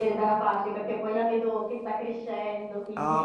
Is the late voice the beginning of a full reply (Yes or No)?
Yes